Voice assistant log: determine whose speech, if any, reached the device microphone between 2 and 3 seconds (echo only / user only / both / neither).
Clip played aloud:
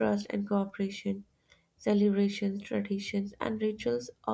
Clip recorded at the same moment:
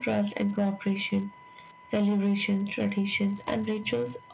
echo only